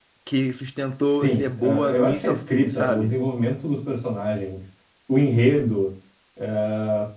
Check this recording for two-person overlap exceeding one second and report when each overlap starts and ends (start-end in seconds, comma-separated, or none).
1.1-3.2